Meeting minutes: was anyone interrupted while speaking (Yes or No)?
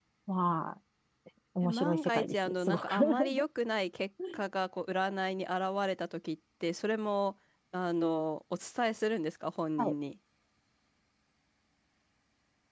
Yes